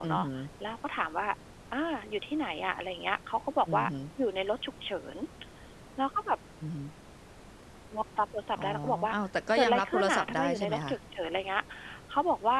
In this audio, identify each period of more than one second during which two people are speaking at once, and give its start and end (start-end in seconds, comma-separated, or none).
9.6-10.9